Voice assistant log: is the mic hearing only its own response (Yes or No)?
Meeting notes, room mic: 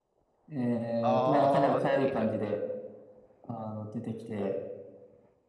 No